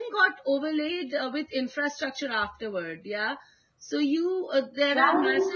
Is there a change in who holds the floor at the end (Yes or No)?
No